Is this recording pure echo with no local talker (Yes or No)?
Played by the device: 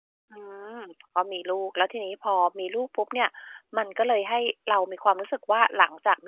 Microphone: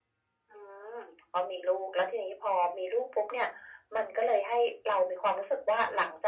Yes